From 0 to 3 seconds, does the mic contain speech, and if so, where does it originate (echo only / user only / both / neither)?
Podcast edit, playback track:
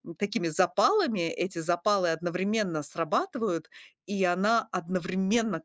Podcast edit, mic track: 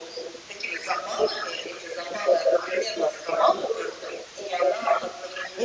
echo only